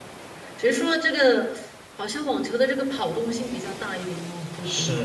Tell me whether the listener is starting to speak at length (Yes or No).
Yes